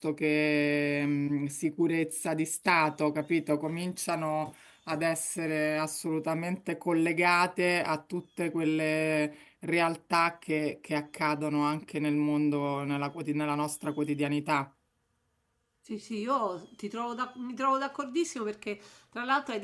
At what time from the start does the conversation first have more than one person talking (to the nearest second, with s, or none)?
none